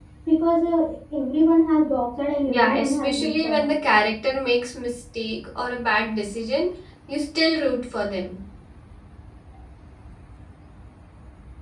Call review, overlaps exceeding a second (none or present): present